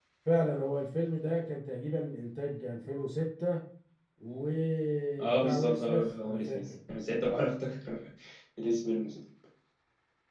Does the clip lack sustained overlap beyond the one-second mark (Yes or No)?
No